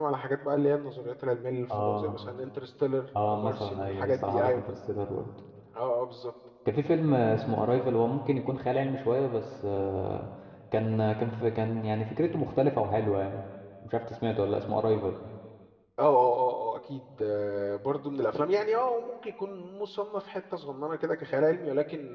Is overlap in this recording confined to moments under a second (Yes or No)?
No